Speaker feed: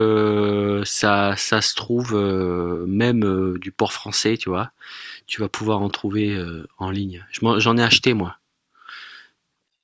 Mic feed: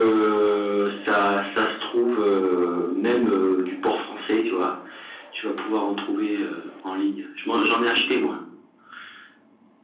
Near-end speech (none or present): none